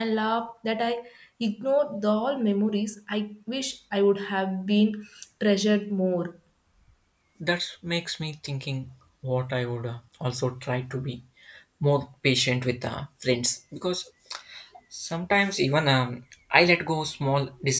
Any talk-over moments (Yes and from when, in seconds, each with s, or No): No